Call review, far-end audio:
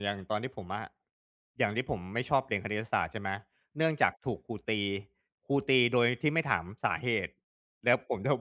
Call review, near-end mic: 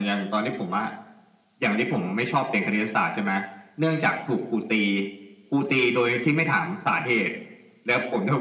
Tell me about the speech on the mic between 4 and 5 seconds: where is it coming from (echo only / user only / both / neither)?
echo only